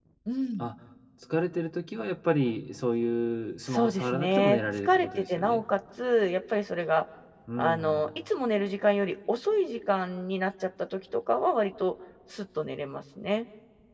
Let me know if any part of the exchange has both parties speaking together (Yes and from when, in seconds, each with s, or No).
Yes, from 3.6 s